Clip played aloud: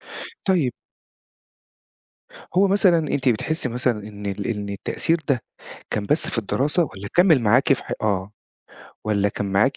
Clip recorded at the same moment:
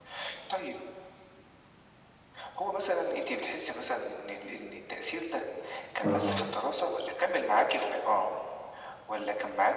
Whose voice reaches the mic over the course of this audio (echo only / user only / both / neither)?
both